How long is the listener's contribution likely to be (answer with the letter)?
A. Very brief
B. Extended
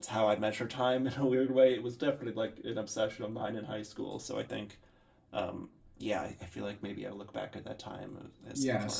B